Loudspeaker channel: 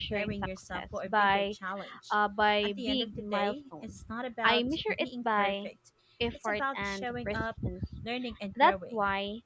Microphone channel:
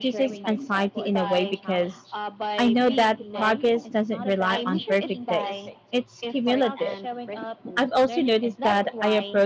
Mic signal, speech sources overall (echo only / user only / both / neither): both